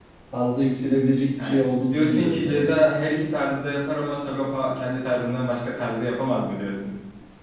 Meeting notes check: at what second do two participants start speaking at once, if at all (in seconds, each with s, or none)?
1.4 s